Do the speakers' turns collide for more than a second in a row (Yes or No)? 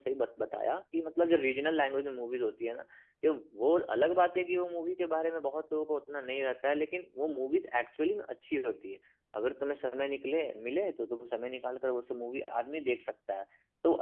No